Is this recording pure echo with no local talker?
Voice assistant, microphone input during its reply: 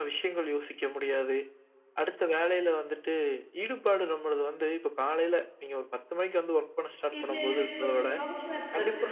No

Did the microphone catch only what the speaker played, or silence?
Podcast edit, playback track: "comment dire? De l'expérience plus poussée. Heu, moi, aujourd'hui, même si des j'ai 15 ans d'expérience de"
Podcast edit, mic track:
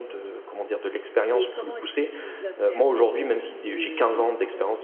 No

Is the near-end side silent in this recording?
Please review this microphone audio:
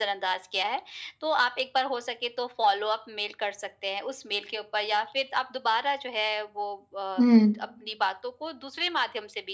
No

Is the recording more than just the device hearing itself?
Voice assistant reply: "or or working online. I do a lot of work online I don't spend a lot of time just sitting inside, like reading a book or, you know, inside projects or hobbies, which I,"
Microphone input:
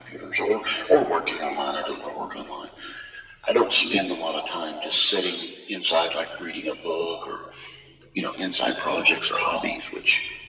No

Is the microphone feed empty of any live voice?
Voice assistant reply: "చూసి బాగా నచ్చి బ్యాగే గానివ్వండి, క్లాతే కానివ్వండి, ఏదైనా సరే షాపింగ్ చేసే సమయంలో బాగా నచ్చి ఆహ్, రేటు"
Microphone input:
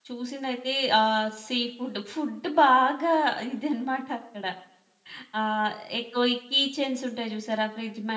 No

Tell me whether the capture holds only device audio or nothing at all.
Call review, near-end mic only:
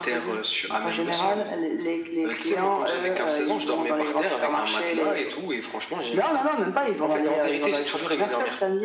Yes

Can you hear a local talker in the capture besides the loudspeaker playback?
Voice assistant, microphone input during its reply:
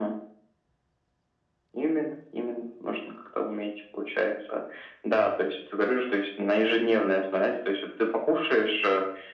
No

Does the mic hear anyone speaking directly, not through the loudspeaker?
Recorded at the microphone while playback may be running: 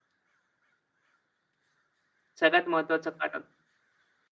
Yes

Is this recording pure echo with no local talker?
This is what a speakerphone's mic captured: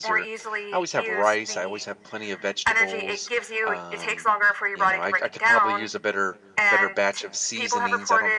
No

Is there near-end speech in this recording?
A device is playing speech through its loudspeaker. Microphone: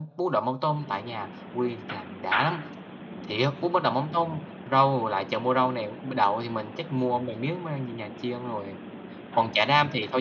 No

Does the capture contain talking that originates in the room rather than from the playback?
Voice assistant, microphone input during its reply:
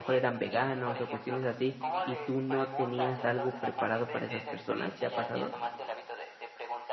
Yes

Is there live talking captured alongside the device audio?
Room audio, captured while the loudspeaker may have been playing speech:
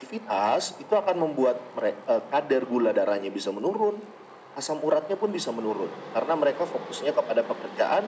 No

